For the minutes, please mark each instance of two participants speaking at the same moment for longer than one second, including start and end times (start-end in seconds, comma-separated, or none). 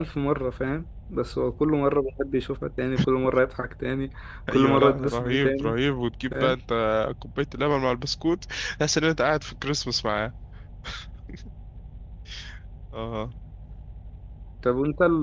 4.5-5.7